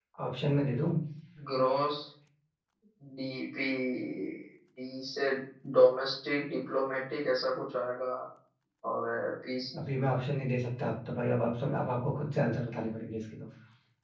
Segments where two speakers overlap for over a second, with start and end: none

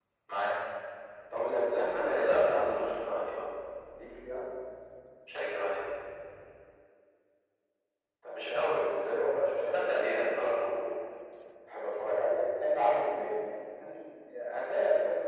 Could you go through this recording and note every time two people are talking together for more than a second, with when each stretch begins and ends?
1.8-3.1, 9.4-10.7

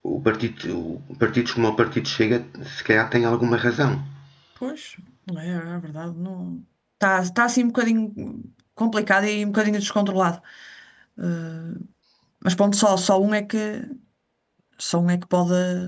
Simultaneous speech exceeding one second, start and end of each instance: none

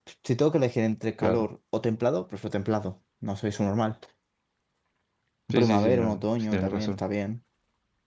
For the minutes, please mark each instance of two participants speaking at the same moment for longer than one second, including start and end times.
5.5-7.0

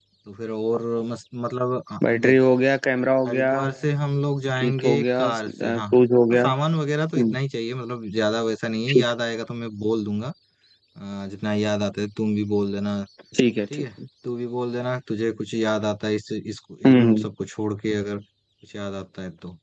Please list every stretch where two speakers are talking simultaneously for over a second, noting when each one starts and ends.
4.6-5.8

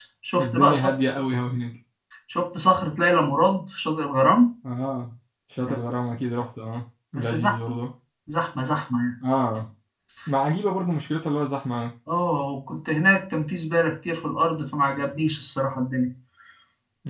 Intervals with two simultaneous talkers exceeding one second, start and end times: none

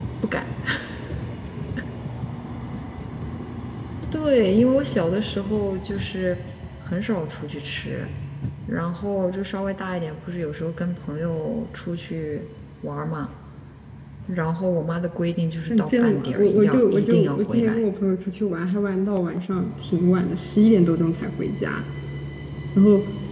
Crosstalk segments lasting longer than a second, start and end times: 15.7-17.8

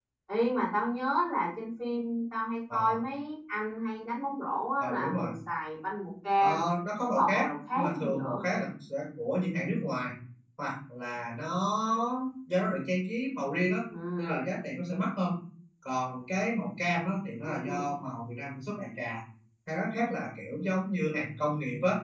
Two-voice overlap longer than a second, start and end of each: 7.2-8.4

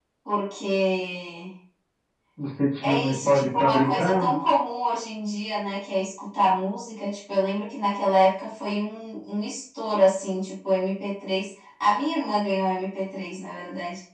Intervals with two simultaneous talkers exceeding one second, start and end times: 2.8-4.2

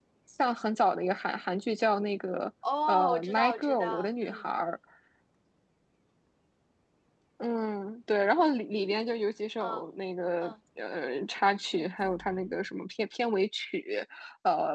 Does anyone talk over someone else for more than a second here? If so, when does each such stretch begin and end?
2.9-4.5

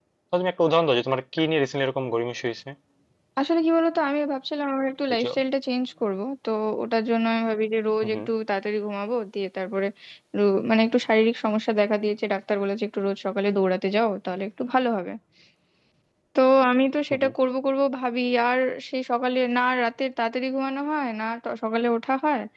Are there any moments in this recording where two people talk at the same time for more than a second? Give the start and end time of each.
none

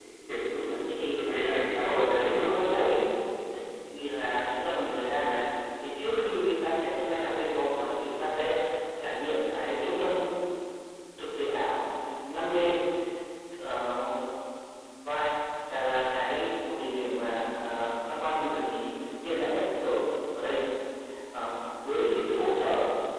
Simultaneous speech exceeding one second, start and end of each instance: 0.9-2.5

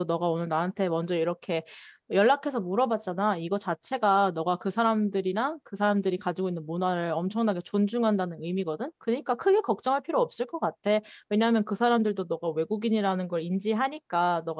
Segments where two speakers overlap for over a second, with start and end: none

